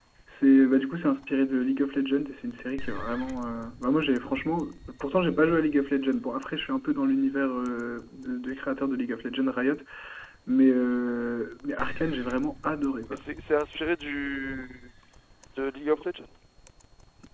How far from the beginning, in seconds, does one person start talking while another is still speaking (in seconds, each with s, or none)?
none